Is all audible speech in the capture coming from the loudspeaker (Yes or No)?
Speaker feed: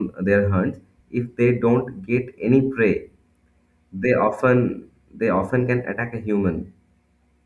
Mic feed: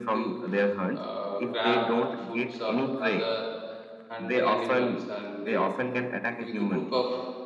No